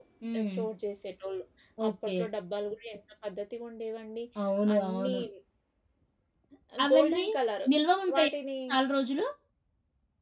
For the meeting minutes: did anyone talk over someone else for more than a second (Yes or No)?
No